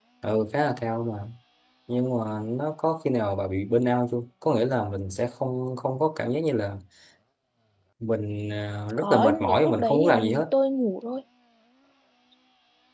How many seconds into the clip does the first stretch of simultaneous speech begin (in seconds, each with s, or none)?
9.0 s